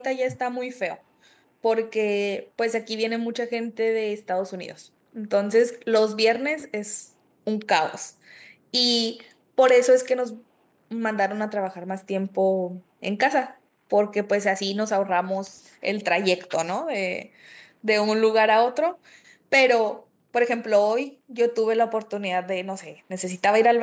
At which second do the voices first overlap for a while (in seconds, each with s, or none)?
none